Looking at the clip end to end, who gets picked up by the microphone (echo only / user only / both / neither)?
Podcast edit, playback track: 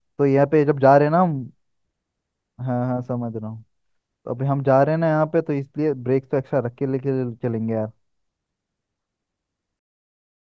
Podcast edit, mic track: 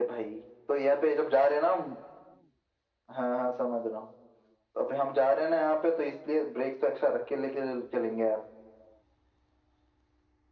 echo only